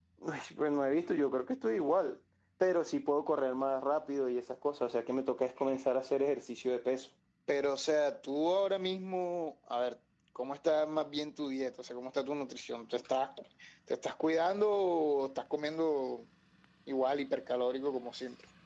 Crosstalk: none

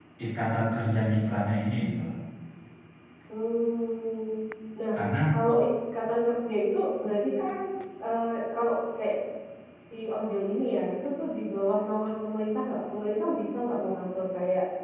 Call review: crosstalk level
none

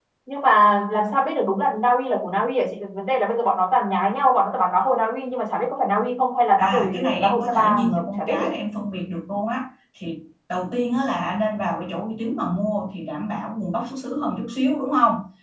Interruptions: present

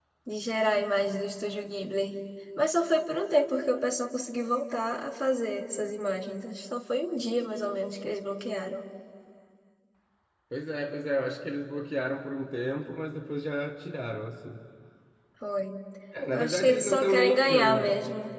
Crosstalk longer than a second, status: present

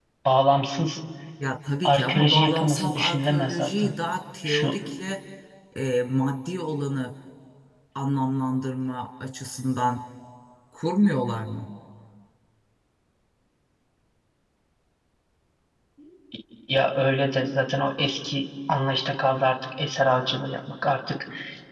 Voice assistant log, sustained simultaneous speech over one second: present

